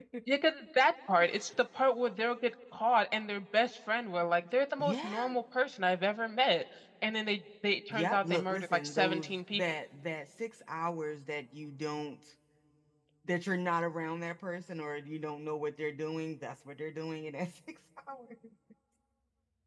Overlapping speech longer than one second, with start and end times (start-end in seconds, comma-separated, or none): 7.9-9.6